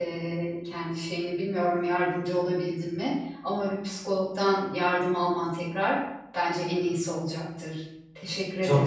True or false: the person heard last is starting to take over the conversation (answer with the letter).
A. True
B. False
A